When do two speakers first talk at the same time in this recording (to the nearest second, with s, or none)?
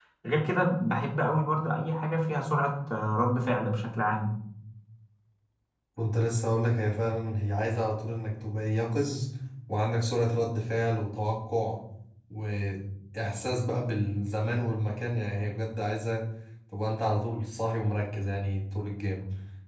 none